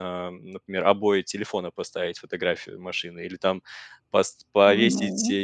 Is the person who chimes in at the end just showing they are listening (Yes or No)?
Yes